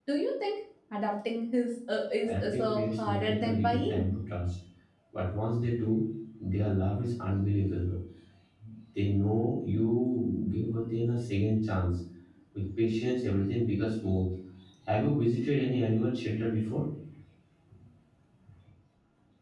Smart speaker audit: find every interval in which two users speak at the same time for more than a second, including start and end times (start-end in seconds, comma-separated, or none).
2.2-4.1